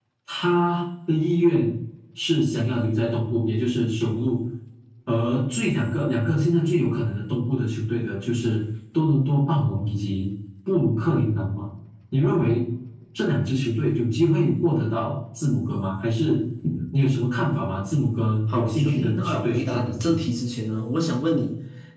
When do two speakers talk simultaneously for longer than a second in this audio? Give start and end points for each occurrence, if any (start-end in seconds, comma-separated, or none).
18.5-20.2